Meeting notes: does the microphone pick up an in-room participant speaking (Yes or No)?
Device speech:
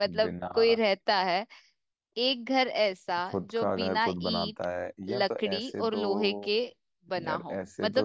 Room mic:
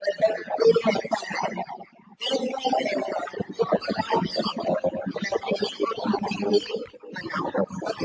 No